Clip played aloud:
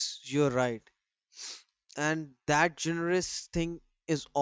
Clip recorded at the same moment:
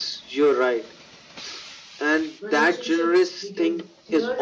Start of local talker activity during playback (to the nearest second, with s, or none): 2 s